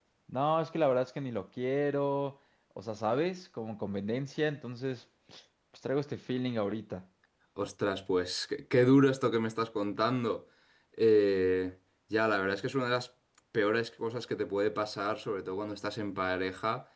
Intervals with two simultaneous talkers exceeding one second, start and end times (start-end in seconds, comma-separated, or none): none